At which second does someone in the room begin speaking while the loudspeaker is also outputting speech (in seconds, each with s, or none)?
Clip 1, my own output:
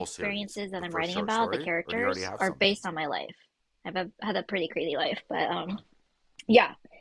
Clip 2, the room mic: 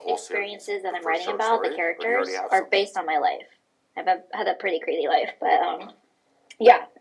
none